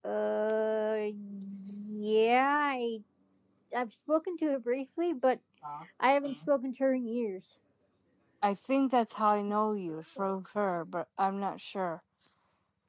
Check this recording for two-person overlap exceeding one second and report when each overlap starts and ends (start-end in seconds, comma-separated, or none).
none